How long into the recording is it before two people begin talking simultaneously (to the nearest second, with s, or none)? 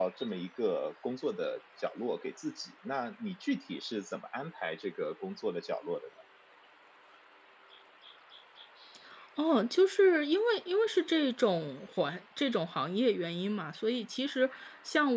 none